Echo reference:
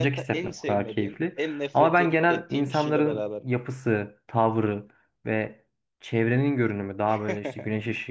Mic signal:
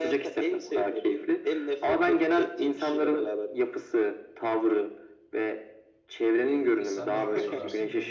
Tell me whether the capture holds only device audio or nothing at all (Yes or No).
No